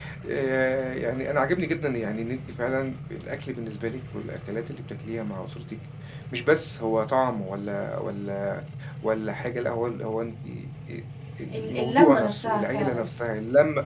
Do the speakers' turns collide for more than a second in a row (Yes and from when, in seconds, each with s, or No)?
Yes, from 11.5 s